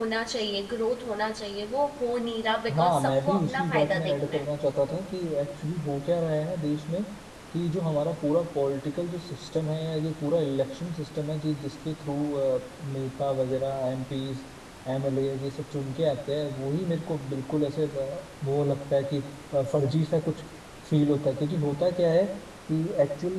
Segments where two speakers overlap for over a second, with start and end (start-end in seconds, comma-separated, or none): 2.7-4.5